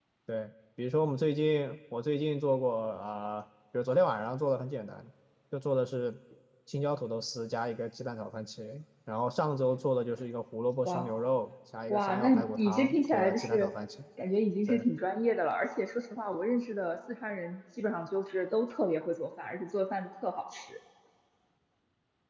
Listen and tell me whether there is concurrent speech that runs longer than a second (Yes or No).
Yes